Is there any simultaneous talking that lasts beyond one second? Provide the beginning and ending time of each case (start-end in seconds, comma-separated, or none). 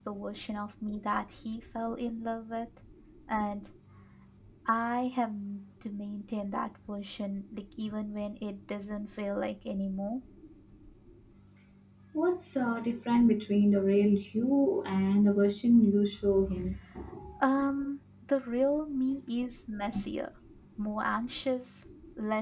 none